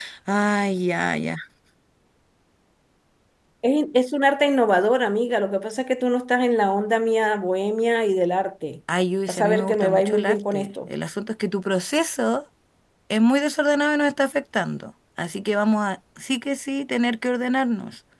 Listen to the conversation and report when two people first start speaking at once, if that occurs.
9 s

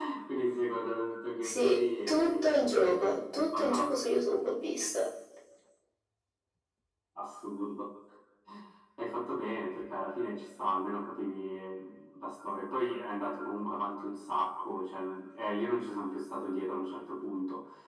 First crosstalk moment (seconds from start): 1 s

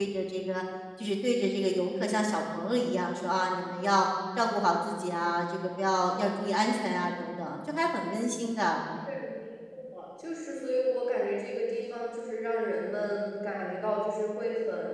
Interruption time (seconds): none

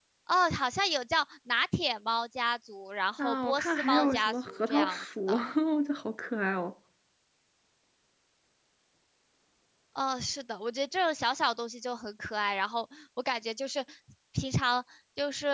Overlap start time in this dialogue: 3 s

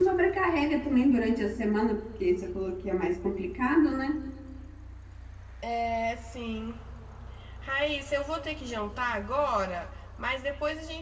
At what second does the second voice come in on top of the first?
none

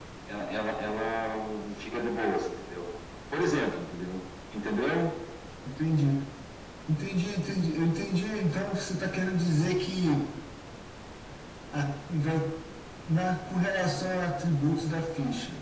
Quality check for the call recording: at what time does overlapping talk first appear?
none

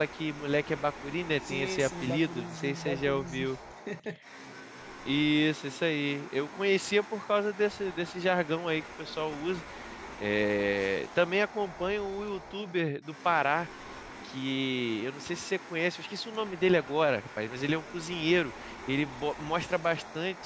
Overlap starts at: 1 s

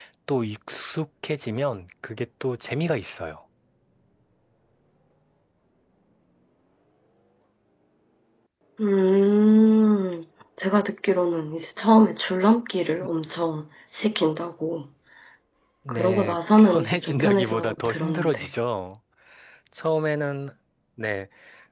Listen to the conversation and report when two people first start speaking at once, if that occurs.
16 s

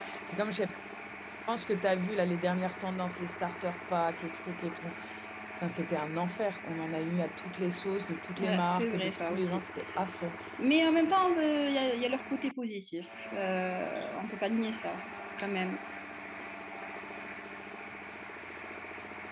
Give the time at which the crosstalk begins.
8 s

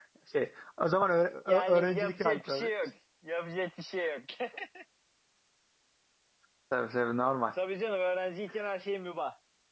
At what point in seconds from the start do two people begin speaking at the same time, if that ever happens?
1 s

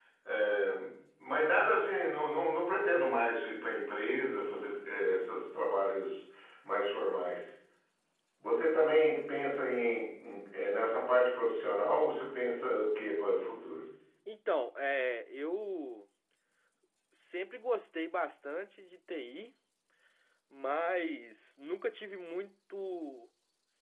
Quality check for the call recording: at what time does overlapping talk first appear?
none

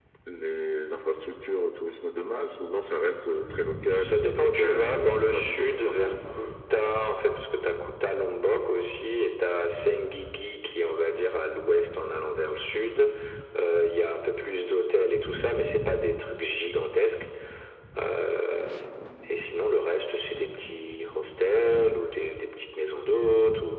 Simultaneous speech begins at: 4 s

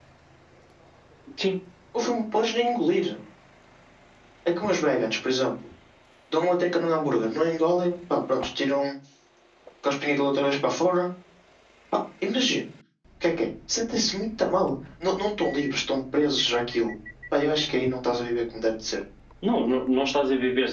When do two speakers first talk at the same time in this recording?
none

